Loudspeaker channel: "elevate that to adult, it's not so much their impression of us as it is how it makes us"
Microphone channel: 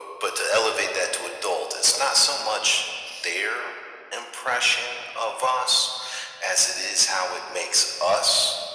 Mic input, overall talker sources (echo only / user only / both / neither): echo only